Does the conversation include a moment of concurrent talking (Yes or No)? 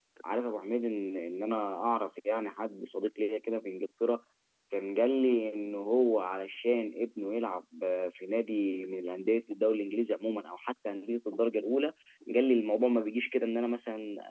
No